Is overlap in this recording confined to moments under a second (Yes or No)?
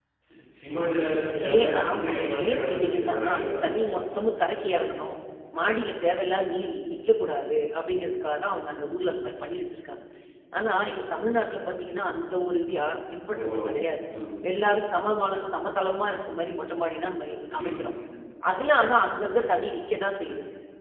No